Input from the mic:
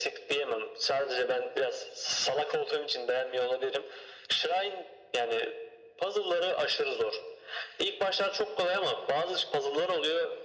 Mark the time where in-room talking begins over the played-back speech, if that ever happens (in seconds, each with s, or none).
none